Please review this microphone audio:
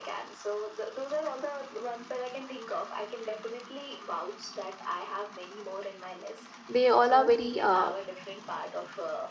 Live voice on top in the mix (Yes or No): Yes